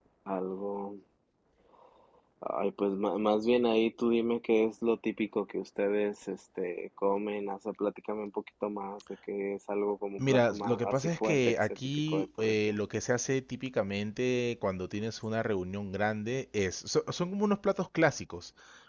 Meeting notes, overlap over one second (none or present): present